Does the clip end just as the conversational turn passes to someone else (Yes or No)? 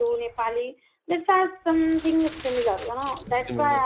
No